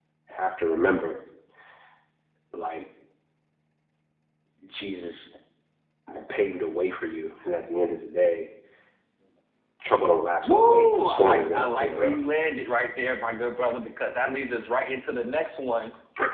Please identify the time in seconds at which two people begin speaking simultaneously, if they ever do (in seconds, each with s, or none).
10.4 s